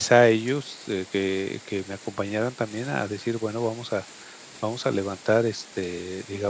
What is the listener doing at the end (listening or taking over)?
listening